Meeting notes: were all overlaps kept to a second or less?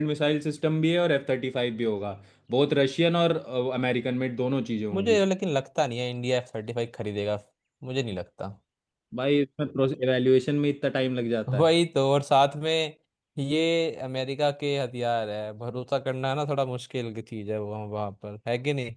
Yes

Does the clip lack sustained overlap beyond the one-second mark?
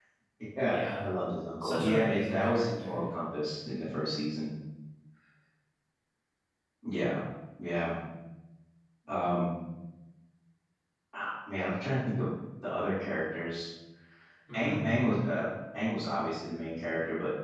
No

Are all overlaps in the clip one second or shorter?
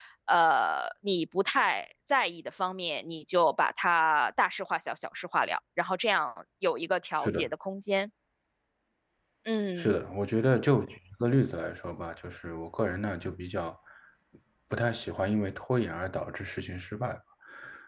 Yes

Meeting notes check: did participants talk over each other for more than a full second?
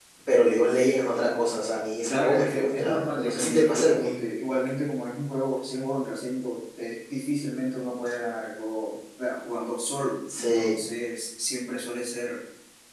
Yes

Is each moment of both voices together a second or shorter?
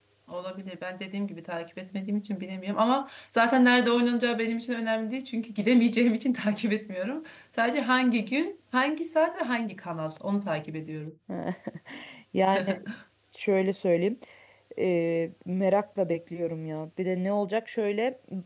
Yes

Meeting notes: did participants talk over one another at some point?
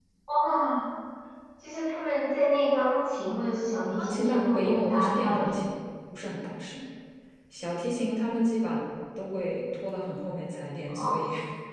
Yes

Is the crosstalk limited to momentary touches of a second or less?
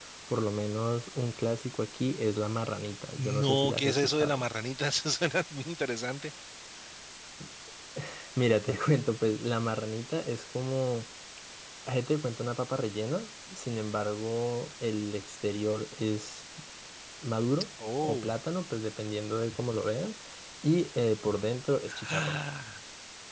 No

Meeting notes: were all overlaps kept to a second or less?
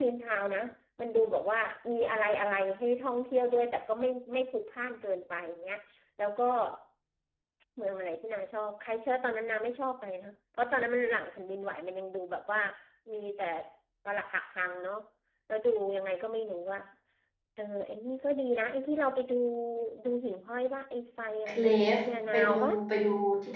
No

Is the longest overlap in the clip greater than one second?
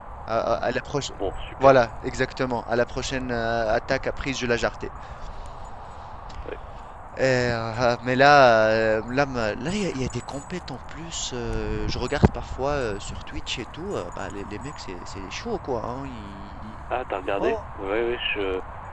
No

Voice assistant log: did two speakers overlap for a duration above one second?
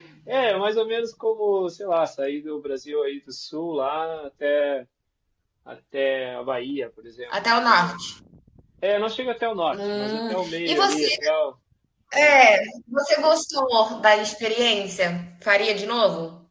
Yes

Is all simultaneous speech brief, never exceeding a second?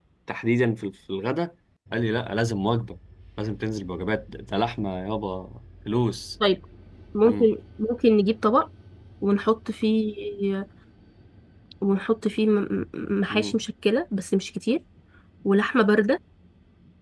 Yes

